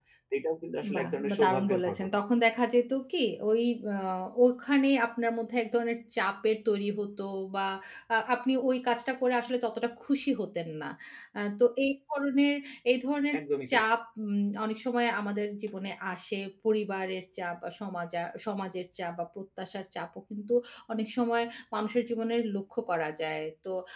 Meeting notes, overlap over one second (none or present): present